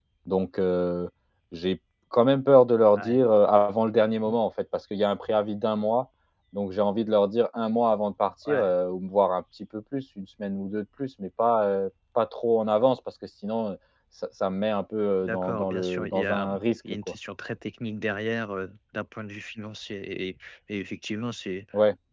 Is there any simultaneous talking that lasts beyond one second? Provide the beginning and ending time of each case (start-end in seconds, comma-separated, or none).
15.2-17.2